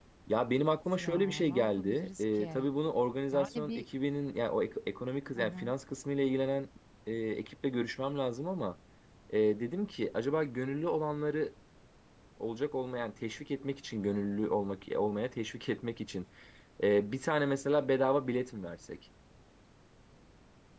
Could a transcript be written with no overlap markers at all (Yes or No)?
No